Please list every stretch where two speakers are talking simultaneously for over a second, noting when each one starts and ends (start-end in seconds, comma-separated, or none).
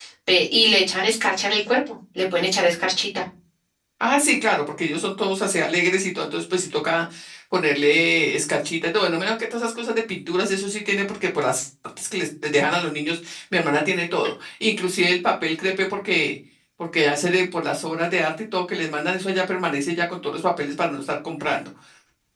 none